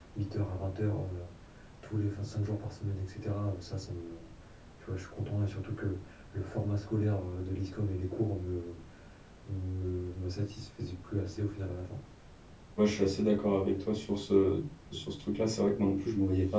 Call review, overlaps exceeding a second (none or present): none